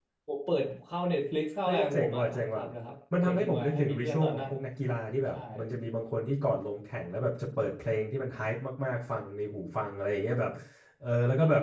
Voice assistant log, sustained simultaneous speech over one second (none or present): present